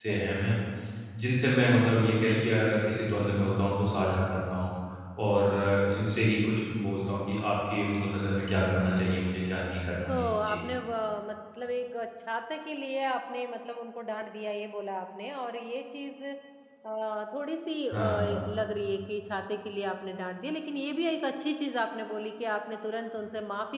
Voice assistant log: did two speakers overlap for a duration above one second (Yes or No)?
No